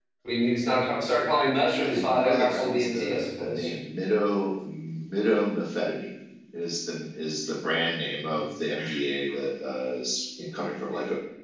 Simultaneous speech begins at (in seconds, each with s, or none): 1.8 s